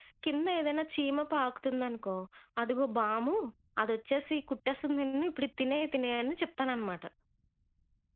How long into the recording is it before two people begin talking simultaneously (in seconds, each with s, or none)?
none